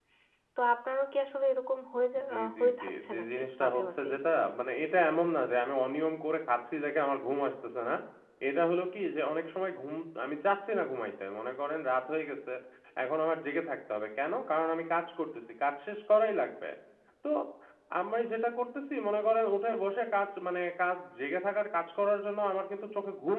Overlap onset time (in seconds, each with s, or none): 2.2 s